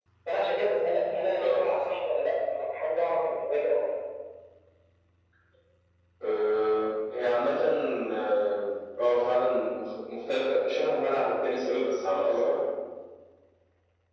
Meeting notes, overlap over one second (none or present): none